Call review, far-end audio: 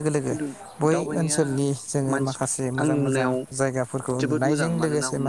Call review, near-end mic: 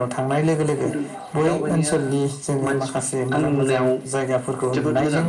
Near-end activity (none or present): none